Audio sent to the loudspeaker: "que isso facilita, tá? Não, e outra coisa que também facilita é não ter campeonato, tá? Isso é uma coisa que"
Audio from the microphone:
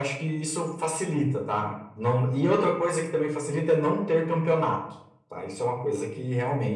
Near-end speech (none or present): none